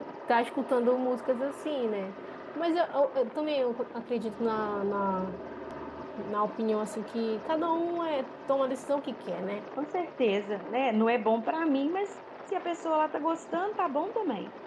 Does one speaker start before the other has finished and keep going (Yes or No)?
No